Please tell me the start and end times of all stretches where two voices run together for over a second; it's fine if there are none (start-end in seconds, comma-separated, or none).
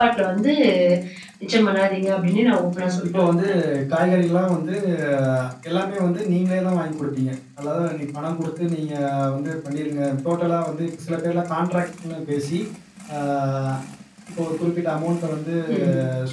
none